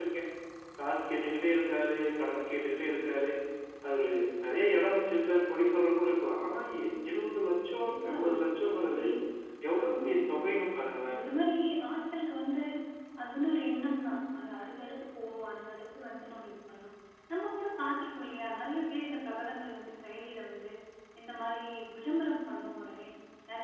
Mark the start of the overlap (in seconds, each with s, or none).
7.8 s